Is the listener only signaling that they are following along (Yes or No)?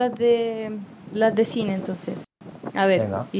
Yes